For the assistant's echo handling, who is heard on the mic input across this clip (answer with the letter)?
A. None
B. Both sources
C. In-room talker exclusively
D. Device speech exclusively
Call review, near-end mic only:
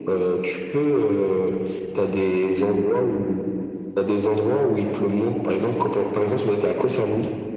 D